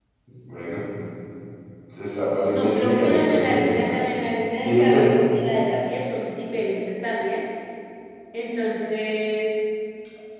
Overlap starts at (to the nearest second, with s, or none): 2 s